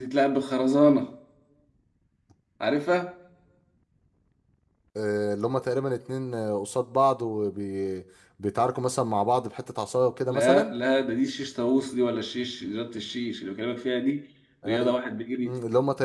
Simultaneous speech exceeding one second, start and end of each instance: none

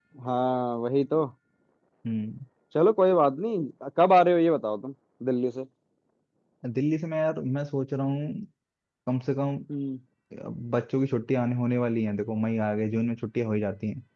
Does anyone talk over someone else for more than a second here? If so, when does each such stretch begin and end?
none

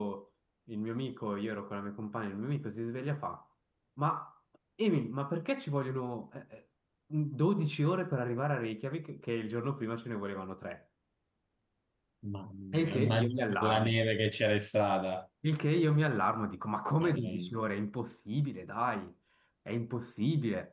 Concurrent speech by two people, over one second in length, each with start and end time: 12.8-14.0

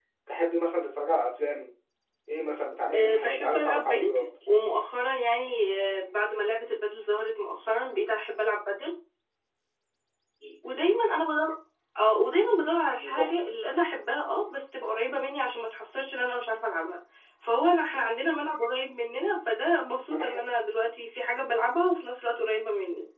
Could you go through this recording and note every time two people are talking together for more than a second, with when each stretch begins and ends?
2.9-4.3

